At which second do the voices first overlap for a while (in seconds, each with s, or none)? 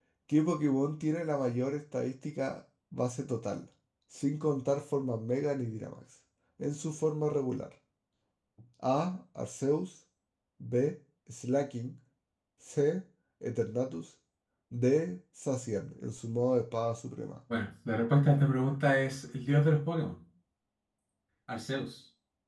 none